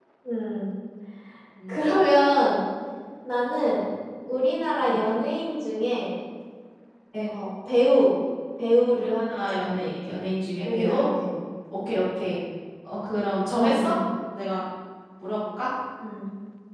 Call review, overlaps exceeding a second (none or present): present